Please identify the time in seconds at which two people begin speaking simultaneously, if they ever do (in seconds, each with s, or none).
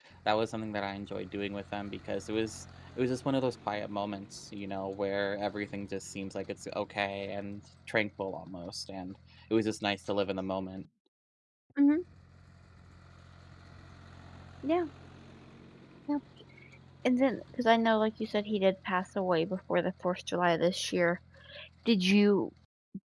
none